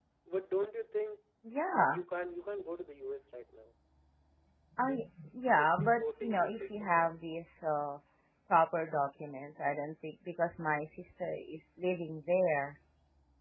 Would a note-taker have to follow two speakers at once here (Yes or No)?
Yes